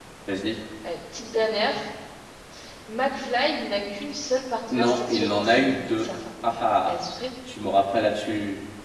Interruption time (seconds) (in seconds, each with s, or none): 4.7 s